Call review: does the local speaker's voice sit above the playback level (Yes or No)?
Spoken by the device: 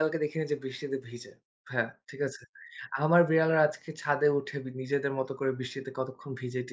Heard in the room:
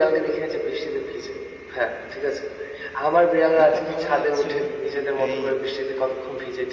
No